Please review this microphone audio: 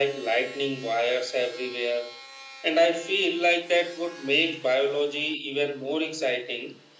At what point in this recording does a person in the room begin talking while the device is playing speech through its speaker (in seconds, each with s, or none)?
none